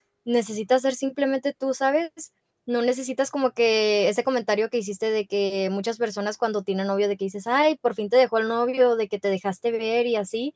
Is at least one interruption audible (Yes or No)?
No